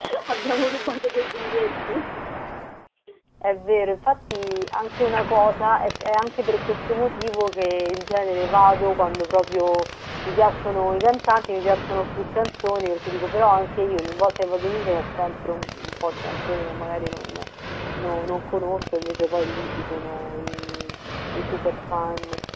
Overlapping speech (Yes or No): No